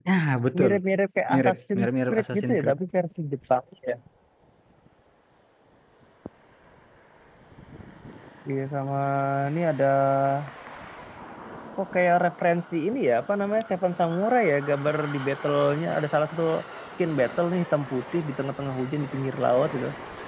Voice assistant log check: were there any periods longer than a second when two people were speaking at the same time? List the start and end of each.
1.3-2.8

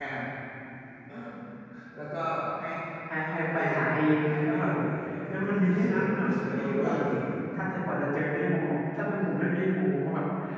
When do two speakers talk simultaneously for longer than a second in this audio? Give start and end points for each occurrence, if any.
5.7-7.0

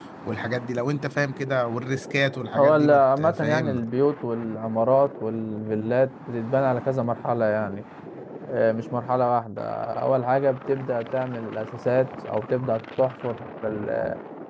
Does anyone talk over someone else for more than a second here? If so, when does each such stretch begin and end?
2.6-3.8

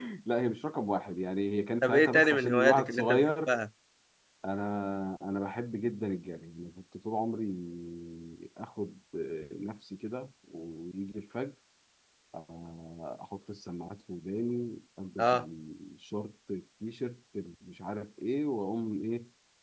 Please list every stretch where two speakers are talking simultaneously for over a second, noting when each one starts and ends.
1.8-3.5

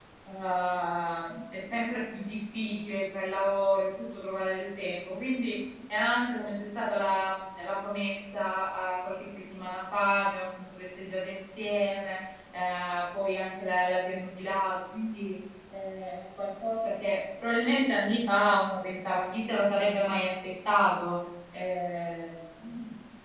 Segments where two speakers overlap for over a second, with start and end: none

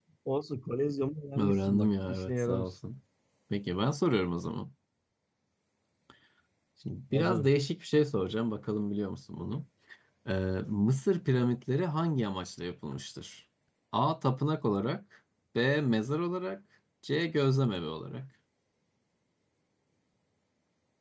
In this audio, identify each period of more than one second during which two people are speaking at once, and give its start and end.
1.4-2.7

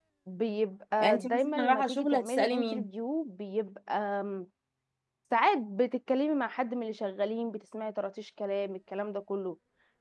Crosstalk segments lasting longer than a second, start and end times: 1.0-2.9

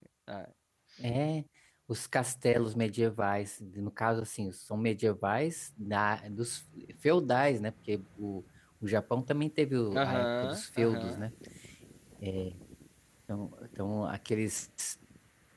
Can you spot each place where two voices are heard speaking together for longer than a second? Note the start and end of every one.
10.0-11.2

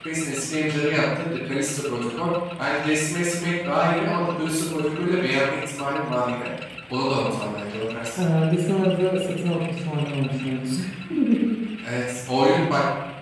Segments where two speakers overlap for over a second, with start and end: none

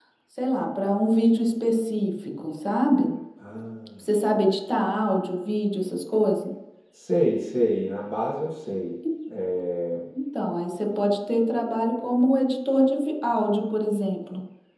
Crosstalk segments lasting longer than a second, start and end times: none

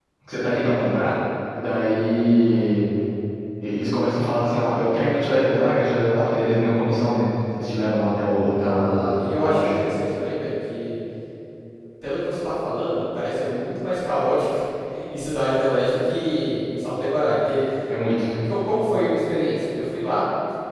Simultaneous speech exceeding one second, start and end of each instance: 8.6-9.8

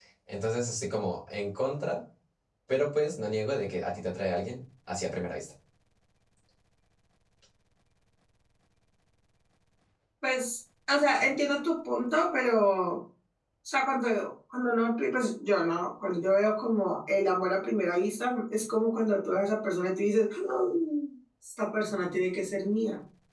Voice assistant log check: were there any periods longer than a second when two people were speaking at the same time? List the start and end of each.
none

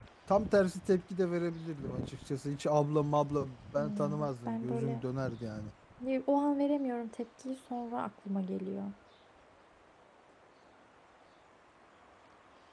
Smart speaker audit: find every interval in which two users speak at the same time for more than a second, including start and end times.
3.8-5.0

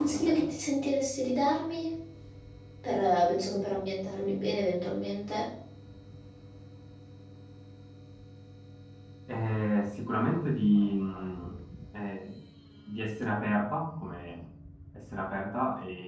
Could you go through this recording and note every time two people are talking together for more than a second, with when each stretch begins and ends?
none

